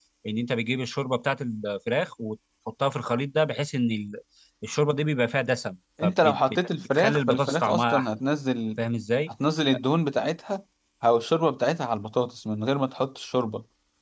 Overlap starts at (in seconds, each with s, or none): 6.0 s